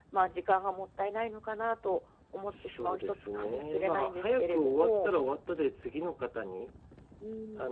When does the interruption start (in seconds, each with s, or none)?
2.5 s